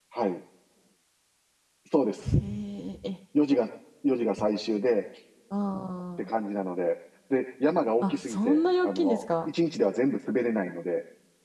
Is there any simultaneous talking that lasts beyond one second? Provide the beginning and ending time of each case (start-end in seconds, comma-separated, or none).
8.0-9.2